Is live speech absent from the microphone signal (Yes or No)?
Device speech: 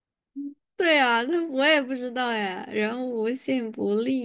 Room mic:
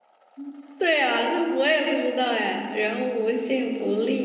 Yes